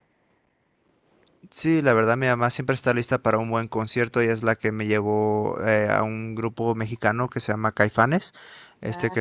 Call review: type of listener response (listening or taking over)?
listening